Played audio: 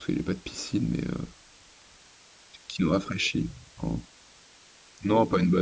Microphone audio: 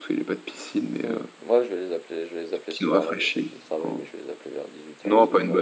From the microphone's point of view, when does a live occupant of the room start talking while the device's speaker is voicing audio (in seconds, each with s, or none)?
1.0 s